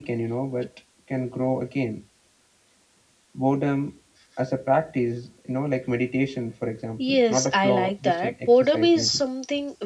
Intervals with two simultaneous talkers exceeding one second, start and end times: 7.1-9.2

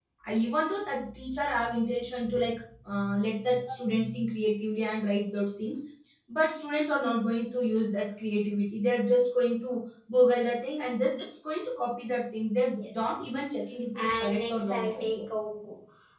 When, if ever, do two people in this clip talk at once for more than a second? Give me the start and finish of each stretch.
13.9-15.2

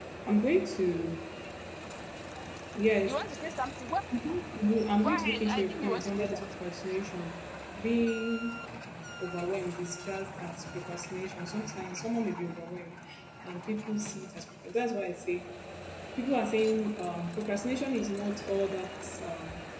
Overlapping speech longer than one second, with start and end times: 5.0-6.5

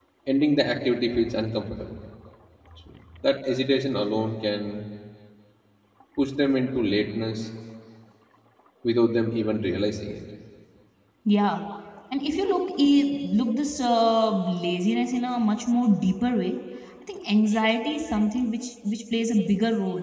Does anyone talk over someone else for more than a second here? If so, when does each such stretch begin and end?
none

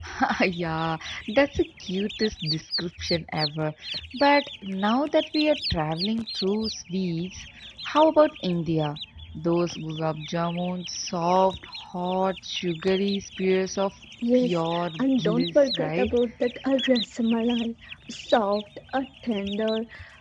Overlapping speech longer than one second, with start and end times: 14.3-16.1

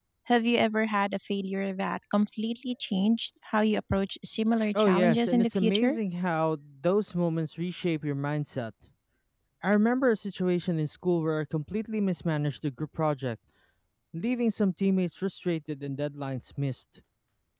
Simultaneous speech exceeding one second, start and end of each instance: 4.7-6.0

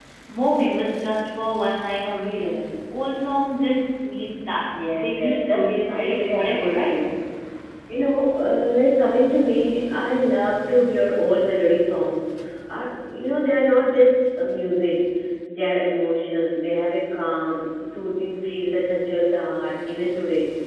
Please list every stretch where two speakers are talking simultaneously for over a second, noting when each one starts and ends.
4.9-6.9

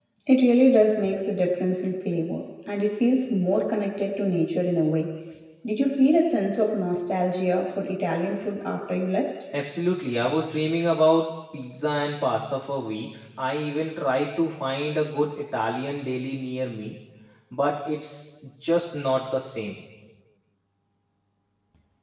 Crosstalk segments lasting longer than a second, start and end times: none

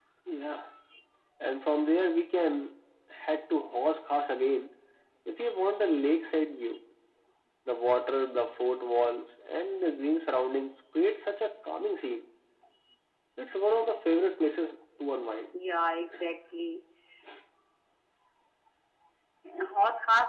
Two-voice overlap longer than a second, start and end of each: none

